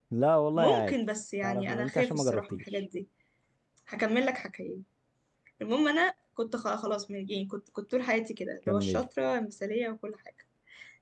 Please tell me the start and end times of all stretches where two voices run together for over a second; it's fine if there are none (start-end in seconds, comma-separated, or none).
1.4-2.8